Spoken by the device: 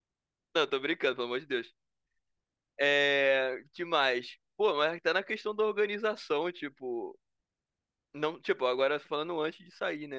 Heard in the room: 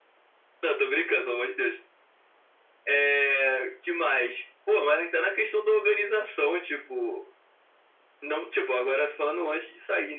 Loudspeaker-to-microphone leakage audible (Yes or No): Yes